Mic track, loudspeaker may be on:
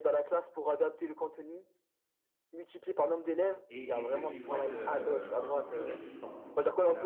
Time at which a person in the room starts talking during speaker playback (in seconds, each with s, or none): 3.7 s